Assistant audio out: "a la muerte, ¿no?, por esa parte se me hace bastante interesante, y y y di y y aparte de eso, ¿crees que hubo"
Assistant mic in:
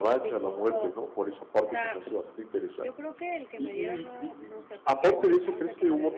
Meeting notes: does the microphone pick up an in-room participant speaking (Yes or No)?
Yes